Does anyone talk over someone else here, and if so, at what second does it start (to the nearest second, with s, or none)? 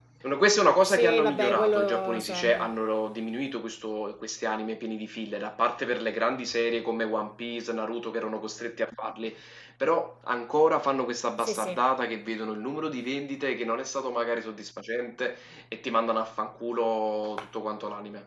1 s